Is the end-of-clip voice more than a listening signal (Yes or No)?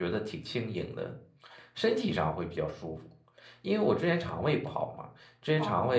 No